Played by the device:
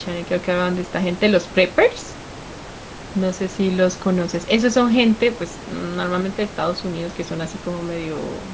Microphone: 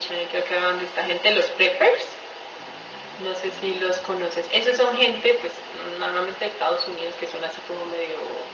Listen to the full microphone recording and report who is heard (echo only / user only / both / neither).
echo only